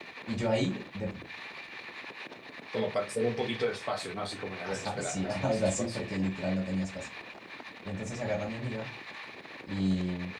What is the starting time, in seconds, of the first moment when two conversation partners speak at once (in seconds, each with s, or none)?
4.6 s